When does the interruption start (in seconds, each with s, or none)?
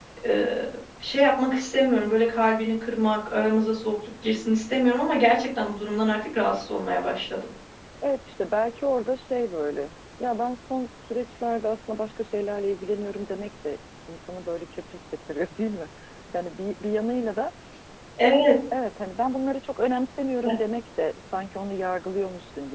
none